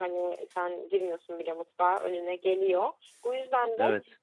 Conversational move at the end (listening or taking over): listening